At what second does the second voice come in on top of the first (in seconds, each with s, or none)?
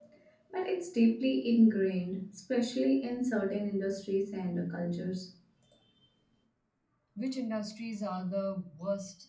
none